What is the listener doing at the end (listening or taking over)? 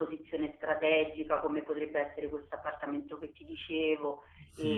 taking over